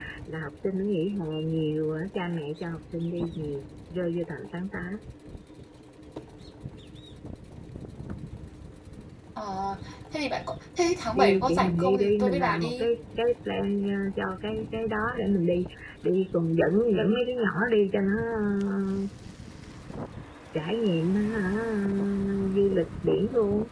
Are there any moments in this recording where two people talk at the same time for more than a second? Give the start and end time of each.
11.1-12.9

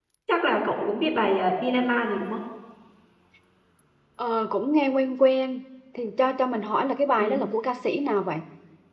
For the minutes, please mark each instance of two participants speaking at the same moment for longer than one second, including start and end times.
none

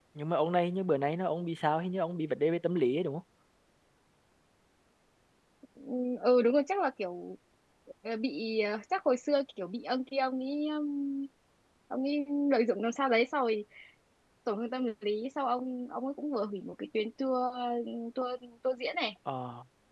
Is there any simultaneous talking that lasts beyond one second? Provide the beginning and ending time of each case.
none

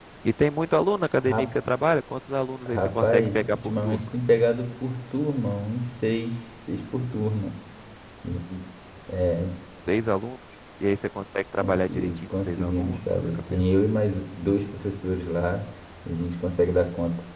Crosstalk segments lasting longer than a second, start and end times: 2.7-4.1, 11.6-13.6

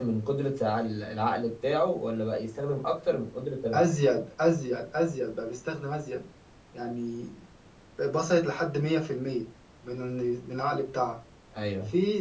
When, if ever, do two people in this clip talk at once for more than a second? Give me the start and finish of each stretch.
none

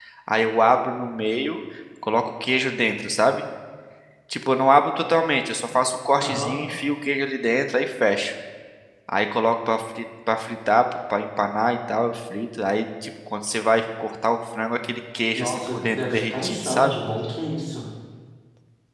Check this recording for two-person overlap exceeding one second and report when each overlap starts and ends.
15.4-17.0

